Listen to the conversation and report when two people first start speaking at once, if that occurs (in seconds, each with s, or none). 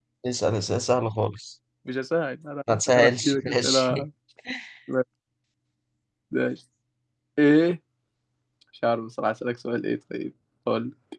2.7 s